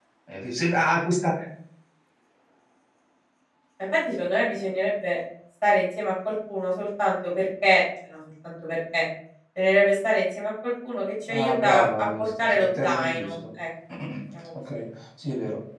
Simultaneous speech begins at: 11.3 s

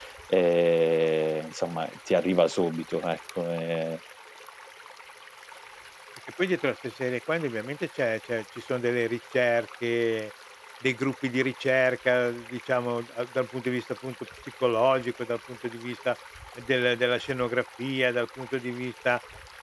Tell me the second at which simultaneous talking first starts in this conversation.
none

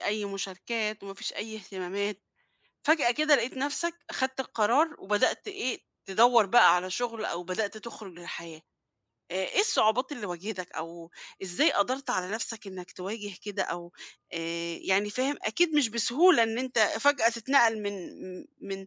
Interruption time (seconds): none

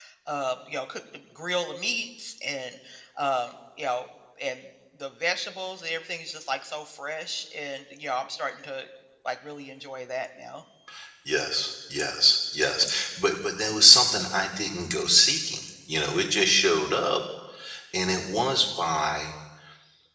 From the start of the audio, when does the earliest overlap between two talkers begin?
none

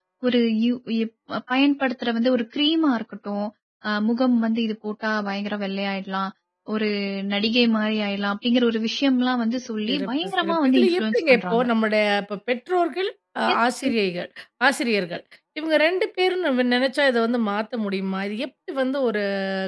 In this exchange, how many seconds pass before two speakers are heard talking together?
9.9 s

